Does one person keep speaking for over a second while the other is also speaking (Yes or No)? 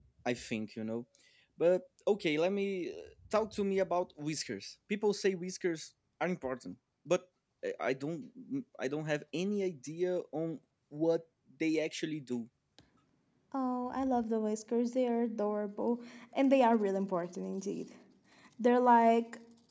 No